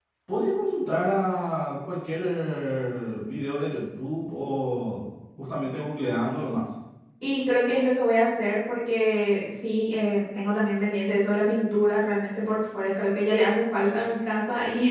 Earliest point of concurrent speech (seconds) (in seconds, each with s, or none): none